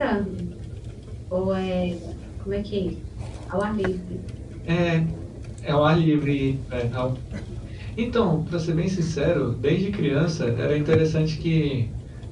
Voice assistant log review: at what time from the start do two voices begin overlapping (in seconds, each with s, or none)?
none